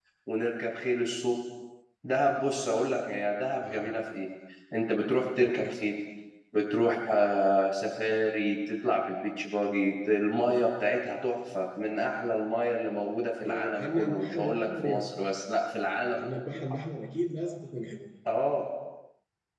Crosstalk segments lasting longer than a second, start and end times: 13.4-15.1

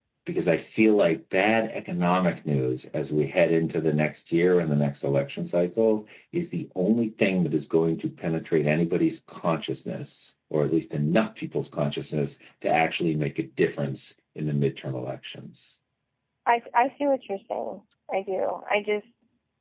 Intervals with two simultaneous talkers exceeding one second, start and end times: none

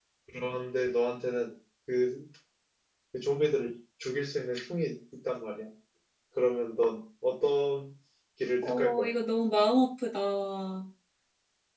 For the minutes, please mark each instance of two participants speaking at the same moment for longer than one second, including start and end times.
none

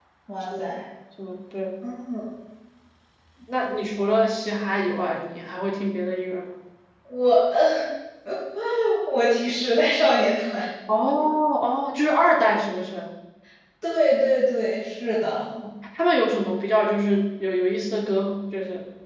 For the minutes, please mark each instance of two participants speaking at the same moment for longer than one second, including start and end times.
none

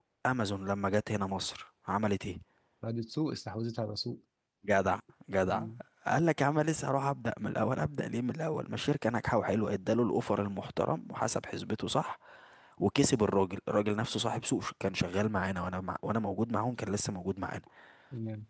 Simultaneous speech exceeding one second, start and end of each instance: none

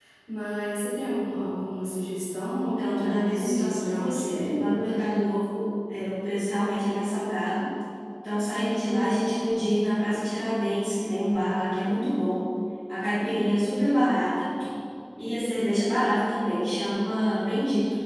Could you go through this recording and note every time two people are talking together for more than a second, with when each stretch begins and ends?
2.6-4.8

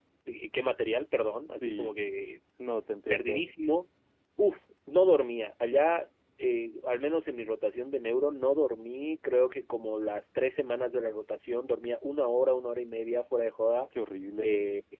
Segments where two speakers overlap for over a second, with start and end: none

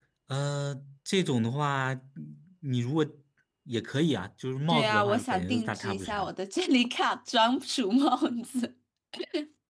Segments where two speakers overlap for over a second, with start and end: 4.7-6.3

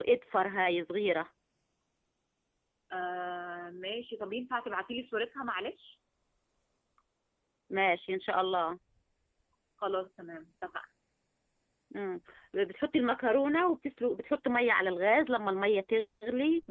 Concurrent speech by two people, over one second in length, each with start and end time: none

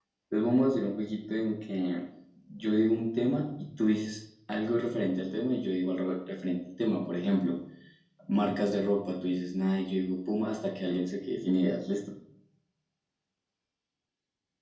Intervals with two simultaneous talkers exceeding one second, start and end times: none

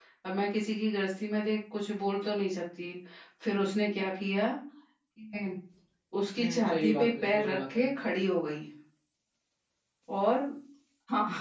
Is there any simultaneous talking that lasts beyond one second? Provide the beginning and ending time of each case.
6.4-7.8

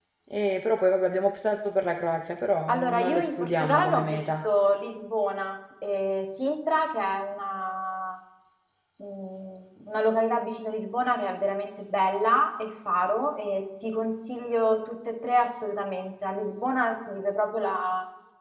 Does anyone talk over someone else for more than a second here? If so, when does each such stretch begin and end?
2.7-4.2

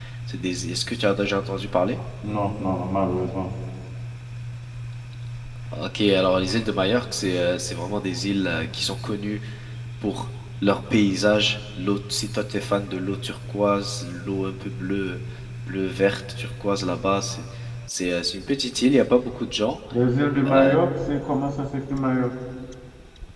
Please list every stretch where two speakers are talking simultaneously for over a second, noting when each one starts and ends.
none

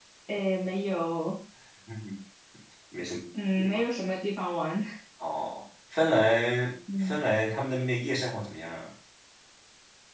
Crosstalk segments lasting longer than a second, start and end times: none

